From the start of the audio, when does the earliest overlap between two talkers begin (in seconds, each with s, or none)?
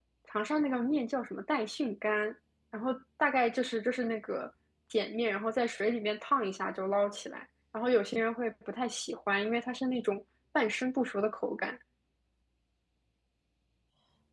none